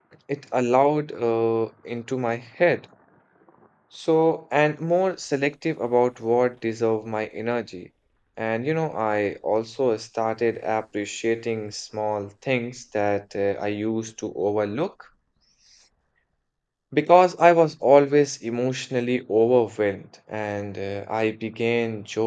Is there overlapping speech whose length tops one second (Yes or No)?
No